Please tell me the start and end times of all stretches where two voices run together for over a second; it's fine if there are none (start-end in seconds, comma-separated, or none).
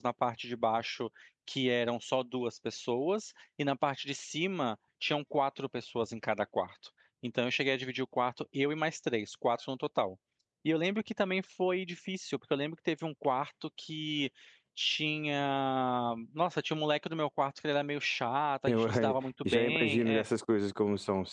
18.7-20.2